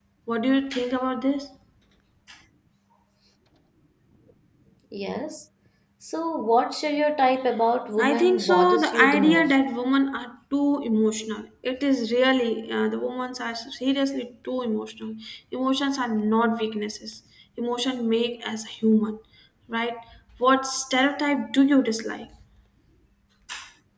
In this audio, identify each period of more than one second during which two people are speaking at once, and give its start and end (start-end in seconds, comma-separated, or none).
8.0-9.6